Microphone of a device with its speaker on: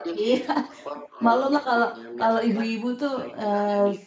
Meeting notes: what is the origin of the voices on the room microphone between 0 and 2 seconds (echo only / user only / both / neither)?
both